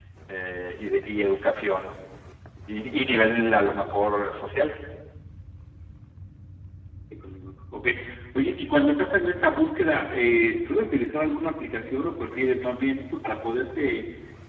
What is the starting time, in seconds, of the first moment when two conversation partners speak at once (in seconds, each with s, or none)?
none